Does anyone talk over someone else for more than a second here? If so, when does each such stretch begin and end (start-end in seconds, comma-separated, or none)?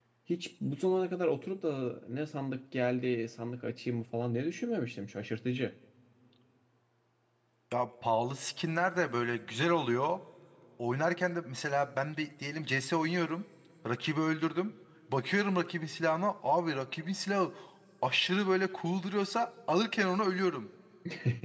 none